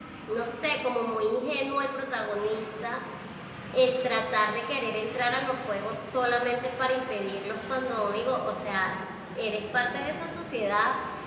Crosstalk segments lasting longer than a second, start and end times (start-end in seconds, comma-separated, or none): none